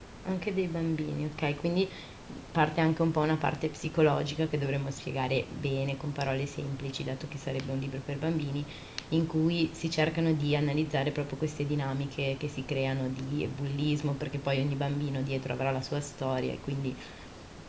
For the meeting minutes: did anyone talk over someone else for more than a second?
No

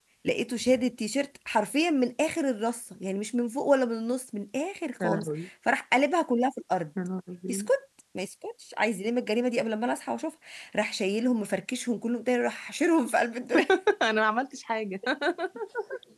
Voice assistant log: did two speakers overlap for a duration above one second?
No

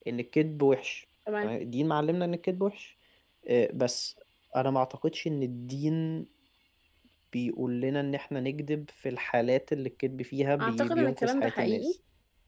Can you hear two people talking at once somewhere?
Yes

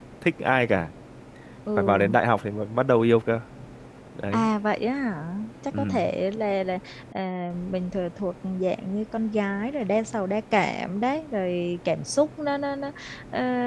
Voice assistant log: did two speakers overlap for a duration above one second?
No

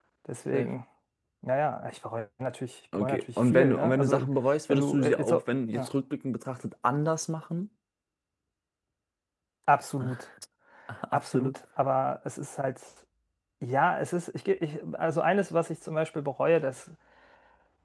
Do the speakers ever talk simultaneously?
Yes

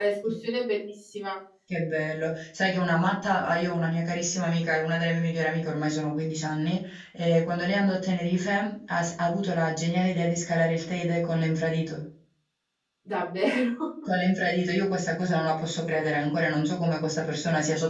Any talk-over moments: No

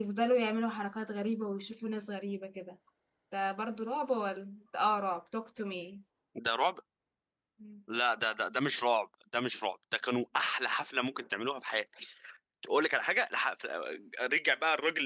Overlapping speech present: No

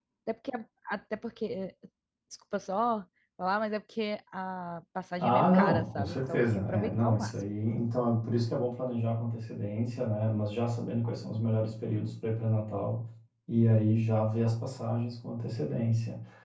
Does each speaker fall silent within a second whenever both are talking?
No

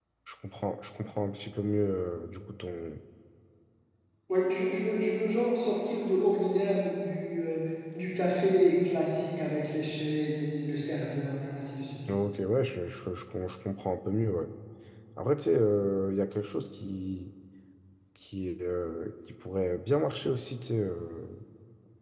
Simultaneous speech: No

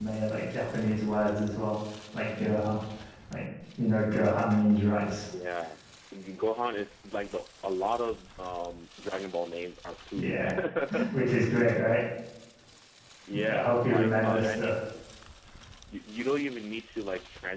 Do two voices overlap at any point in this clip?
Yes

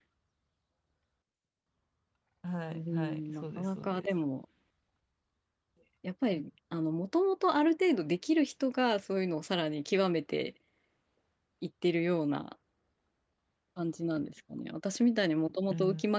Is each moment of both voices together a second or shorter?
No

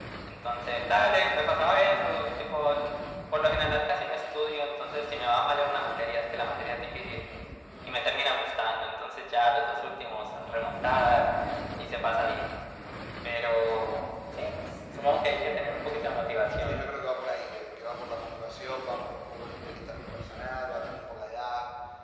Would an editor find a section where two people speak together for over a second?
No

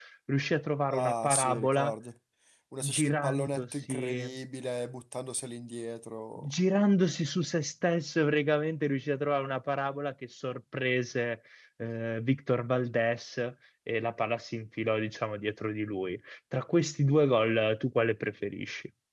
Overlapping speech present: Yes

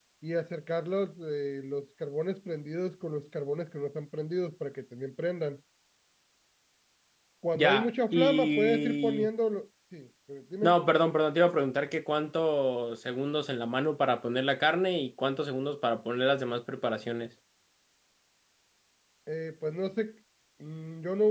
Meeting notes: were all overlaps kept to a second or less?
No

